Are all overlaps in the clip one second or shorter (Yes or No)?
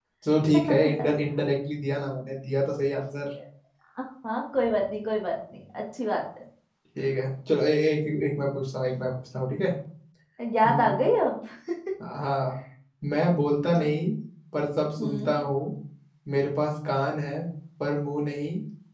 Yes